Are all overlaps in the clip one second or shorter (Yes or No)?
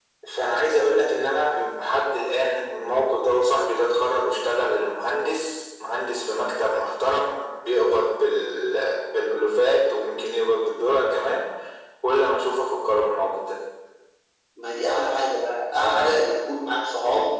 Yes